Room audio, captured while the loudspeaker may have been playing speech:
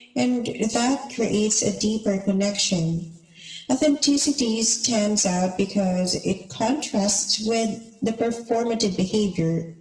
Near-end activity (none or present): none